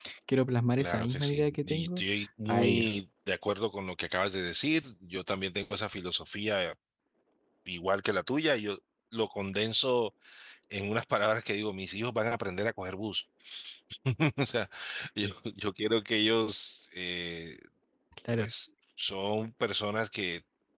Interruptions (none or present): present